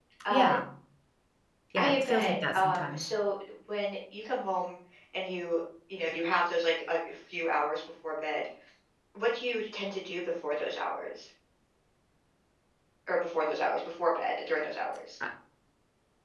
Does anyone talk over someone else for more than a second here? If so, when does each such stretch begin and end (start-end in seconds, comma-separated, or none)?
1.8-3.1